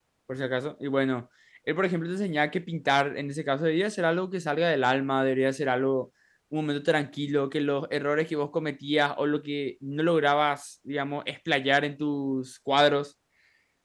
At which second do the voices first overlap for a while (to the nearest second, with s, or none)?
none